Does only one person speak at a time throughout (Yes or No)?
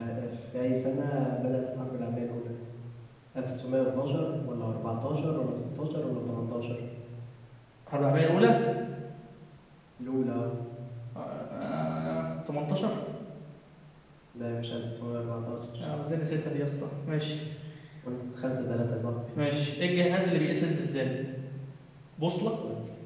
Yes